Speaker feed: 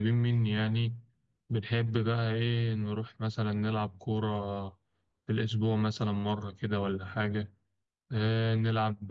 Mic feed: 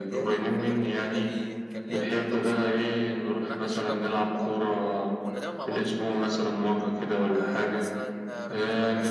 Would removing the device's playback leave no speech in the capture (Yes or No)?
No